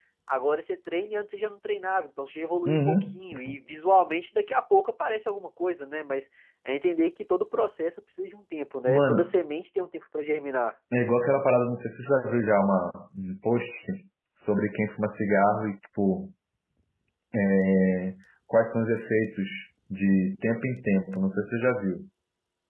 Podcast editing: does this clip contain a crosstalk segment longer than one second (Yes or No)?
No